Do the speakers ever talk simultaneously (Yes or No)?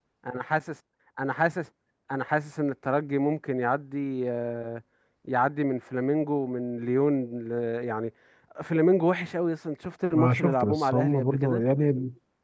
Yes